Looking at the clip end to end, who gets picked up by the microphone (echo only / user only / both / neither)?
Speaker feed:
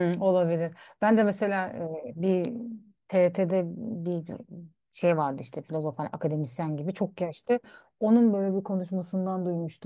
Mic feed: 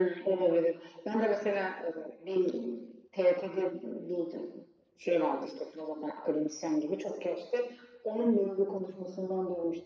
echo only